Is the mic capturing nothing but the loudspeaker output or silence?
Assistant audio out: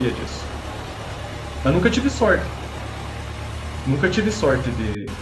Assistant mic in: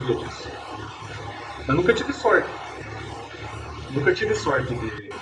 Yes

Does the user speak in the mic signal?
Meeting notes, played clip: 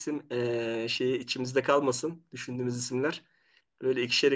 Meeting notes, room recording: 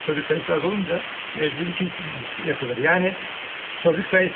Yes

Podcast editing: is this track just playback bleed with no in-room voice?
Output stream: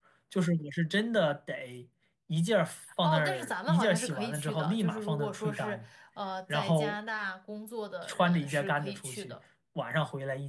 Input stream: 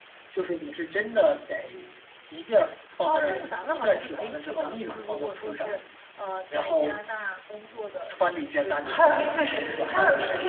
No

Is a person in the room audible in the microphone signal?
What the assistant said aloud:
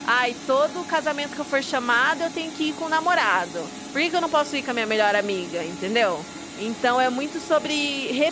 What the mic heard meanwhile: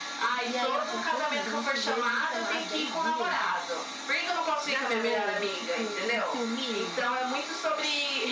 Yes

